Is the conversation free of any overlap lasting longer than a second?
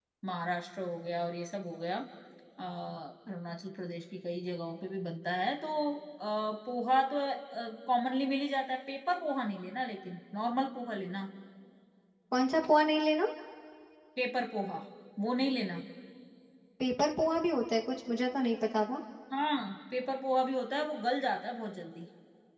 Yes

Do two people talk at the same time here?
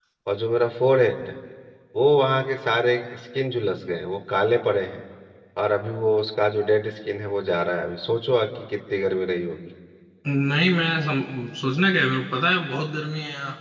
No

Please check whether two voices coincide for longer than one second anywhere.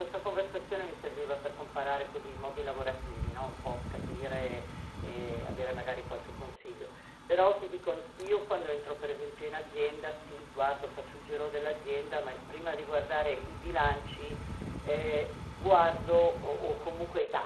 No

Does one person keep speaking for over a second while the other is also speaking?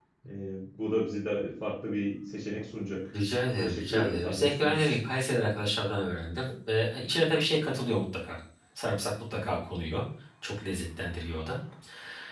Yes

